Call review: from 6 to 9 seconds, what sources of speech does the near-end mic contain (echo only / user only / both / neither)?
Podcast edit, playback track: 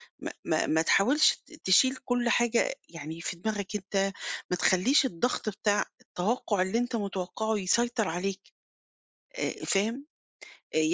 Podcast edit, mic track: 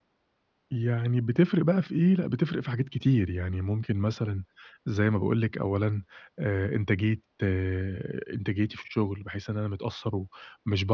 user only